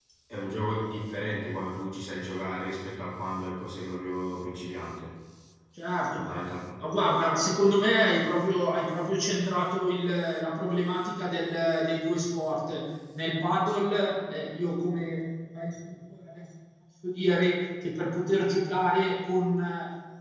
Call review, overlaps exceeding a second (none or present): none